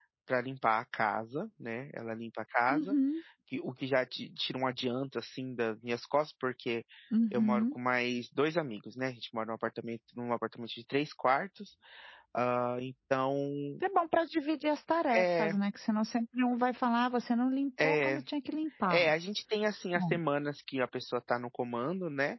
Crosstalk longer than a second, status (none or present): none